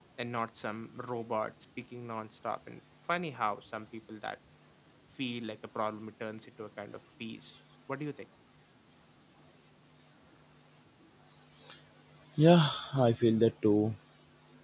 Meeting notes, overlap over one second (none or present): none